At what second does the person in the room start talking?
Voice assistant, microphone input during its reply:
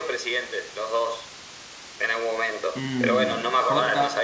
3 s

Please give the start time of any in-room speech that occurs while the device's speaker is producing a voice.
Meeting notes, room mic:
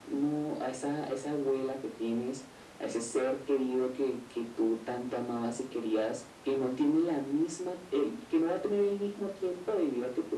none

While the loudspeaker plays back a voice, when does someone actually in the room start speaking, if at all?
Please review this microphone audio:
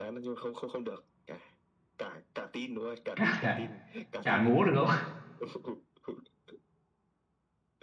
3 s

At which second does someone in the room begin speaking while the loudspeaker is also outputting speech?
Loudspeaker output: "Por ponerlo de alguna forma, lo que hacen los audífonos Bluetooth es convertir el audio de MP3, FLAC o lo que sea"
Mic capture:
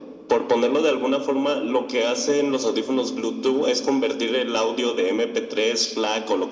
none

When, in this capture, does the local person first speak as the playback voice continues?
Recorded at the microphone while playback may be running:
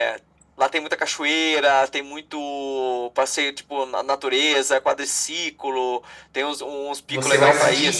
7 s

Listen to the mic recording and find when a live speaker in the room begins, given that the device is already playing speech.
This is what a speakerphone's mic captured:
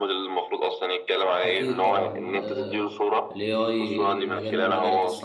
1 s

